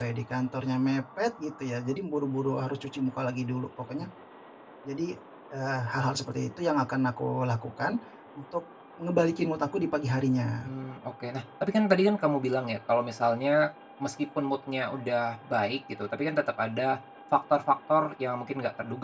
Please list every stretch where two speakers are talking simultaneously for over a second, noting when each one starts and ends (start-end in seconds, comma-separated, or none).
none